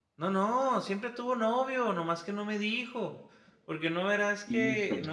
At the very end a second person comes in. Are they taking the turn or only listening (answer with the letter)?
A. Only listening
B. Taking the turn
A